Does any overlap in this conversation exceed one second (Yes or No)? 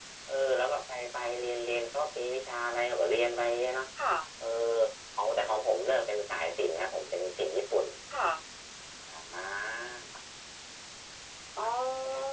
No